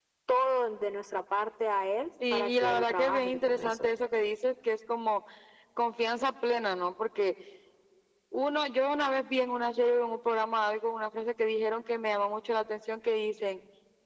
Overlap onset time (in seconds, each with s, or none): 2.2 s